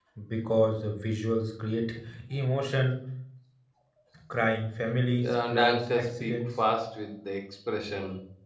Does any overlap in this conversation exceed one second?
Yes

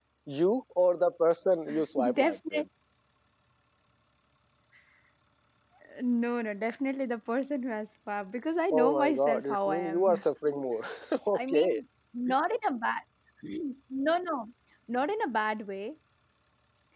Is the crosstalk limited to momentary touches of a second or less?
No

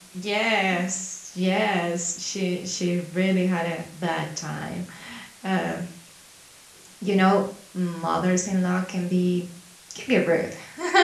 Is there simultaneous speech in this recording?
No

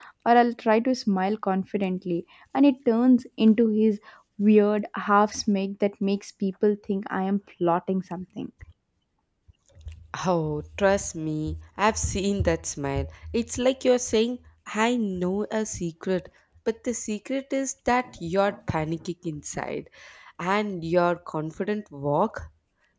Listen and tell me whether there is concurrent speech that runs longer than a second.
No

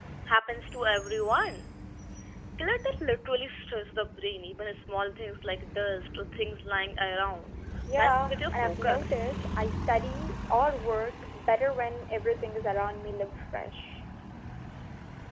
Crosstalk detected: Yes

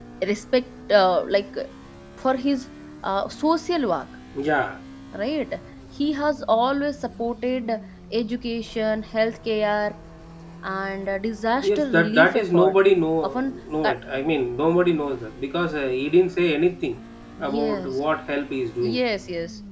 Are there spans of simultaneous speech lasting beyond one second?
Yes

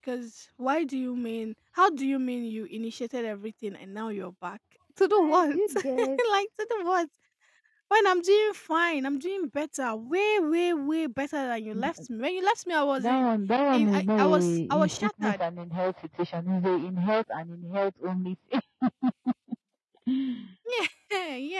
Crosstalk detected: Yes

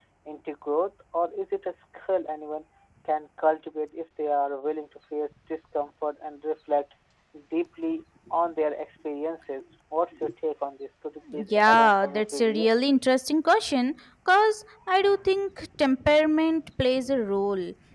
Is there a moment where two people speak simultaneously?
Yes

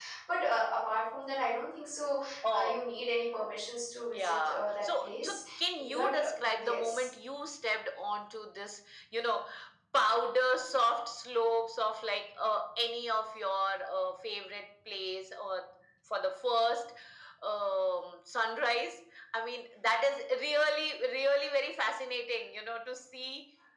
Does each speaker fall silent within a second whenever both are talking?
No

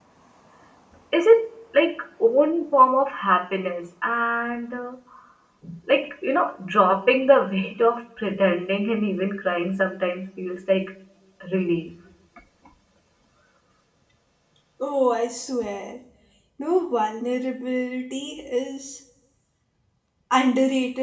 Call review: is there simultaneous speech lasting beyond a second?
No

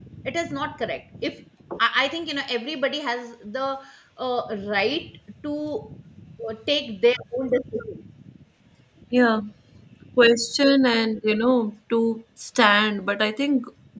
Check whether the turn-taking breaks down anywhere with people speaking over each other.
No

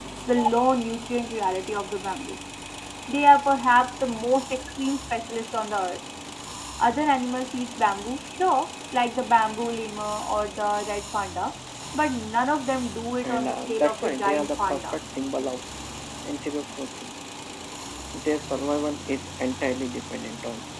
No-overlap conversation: No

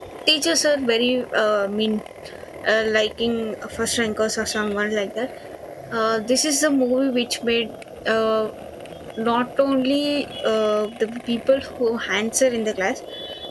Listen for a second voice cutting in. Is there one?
No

